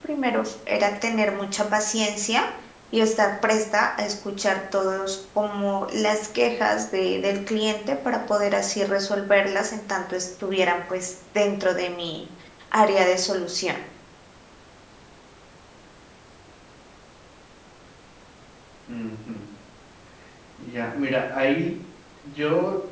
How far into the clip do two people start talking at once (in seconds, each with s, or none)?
none